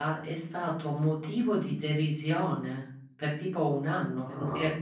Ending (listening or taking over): listening